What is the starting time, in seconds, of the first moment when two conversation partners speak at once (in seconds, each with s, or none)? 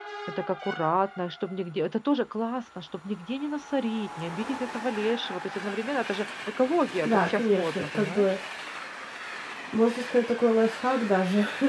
7.0 s